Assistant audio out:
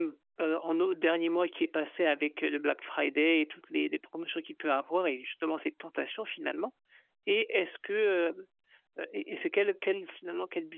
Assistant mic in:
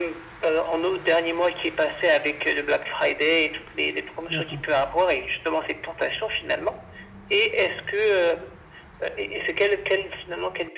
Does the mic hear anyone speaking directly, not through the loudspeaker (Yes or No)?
Yes